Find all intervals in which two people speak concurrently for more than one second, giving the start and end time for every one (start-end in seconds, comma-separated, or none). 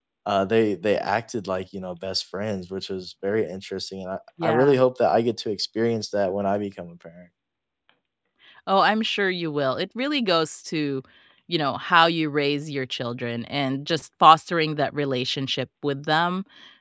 none